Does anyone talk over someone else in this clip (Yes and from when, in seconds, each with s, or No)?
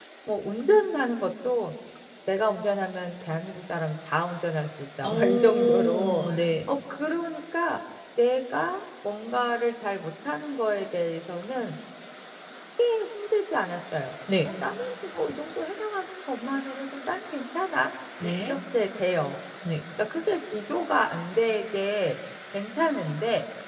Yes, from 5.0 s